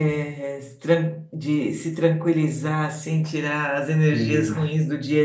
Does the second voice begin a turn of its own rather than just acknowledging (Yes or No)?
No